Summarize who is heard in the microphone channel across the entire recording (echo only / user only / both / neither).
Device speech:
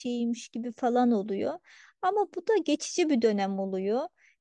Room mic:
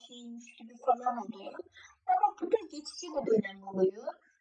echo only